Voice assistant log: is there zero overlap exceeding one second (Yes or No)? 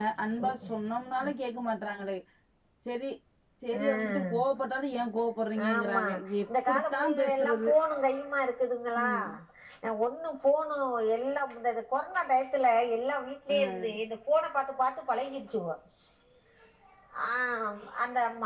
No